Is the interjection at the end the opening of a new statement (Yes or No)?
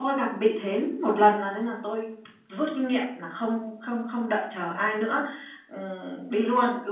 No